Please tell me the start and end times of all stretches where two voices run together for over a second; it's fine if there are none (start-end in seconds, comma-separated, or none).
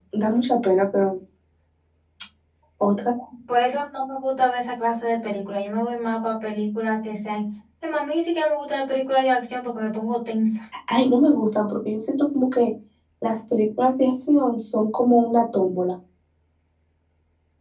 none